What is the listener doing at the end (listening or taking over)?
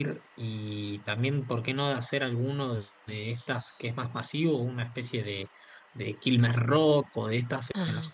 listening